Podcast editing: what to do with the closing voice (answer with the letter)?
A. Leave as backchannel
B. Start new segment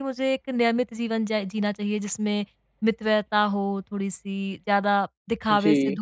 A